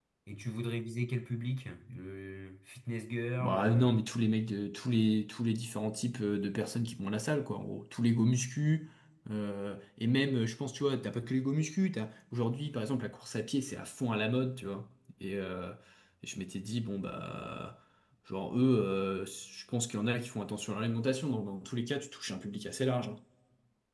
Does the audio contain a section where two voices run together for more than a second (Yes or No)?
No